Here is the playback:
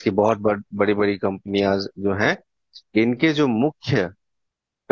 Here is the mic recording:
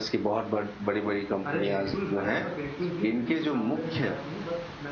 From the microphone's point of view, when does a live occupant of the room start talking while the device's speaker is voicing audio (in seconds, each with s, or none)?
1.5 s